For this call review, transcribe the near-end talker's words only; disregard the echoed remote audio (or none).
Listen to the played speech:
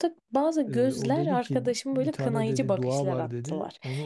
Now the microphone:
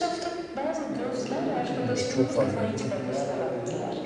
Evet çok fazla yani bizim.